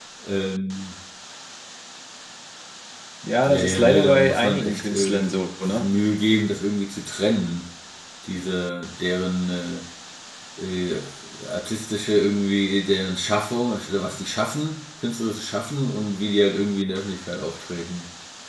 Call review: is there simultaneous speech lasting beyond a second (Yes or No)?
Yes